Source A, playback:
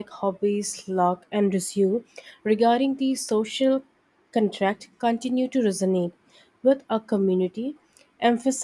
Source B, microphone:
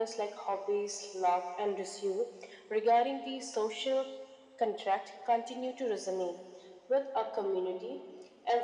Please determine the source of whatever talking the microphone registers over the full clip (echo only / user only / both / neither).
echo only